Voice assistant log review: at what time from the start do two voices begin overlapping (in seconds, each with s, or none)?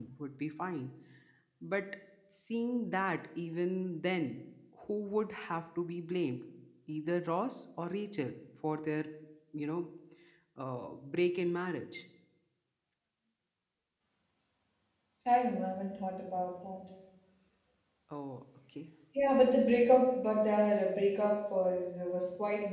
none